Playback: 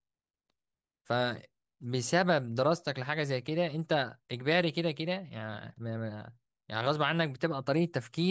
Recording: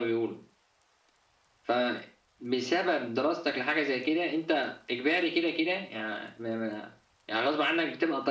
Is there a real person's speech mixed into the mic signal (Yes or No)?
No